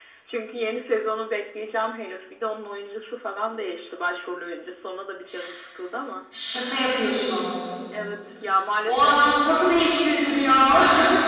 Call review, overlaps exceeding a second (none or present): none